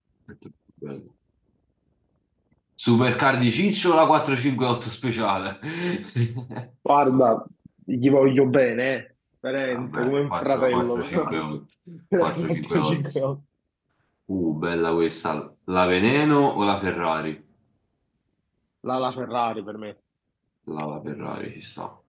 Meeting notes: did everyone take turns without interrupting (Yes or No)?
No